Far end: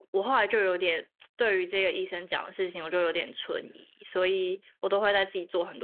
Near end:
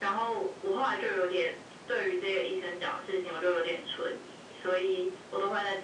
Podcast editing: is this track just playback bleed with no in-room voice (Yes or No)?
Yes